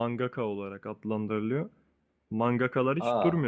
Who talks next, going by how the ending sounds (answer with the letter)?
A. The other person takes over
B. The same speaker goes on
B